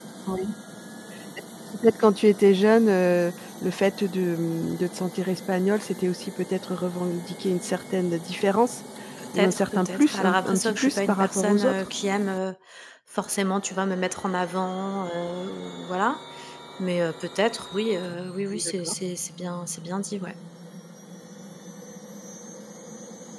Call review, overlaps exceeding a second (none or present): present